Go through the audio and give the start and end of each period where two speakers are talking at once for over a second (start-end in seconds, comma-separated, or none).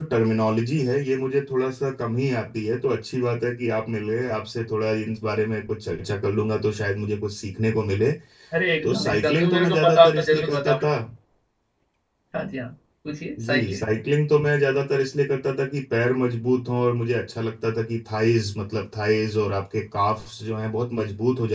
8.8-10.9